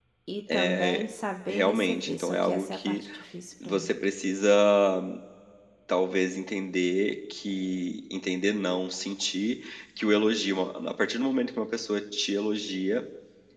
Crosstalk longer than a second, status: present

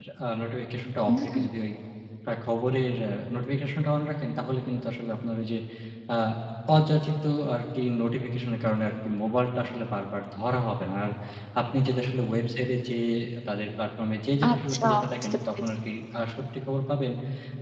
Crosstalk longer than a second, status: present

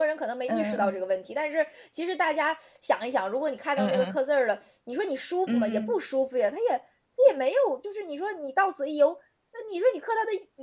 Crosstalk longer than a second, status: none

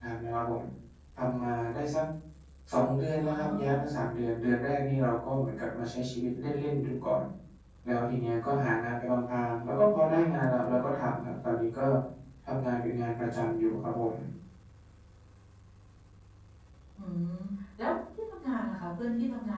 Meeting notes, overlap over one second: none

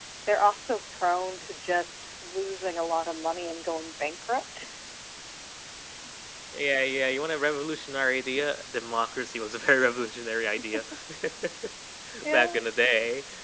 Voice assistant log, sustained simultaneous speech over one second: none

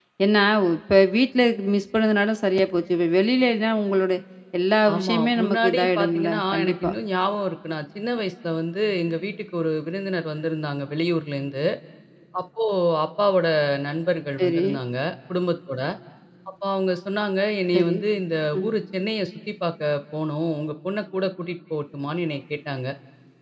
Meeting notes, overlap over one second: present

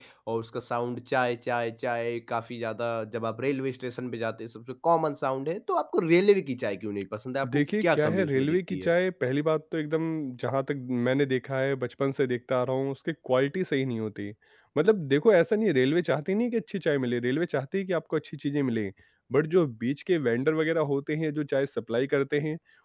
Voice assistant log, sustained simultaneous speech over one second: present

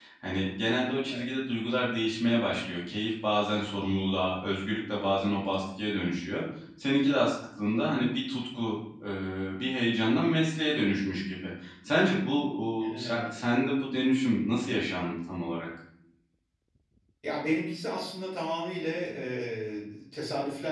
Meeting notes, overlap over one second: none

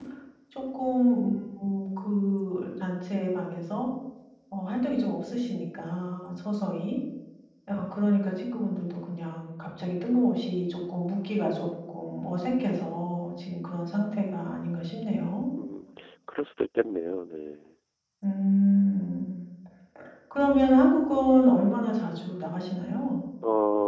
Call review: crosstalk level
none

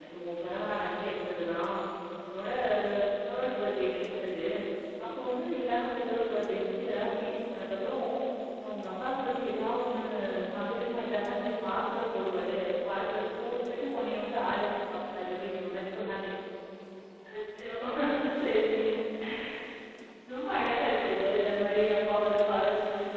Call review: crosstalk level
none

